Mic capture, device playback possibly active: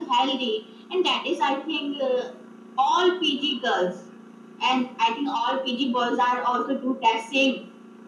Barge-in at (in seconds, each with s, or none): none